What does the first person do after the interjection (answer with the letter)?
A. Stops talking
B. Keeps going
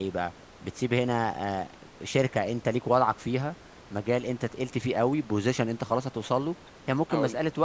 B